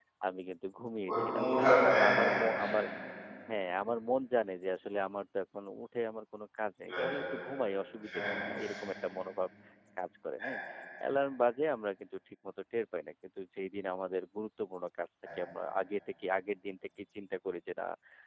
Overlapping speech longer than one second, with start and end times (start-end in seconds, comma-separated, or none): 1.1-2.4